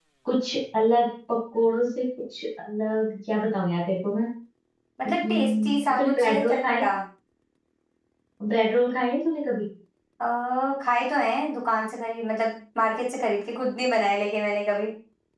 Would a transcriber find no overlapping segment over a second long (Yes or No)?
No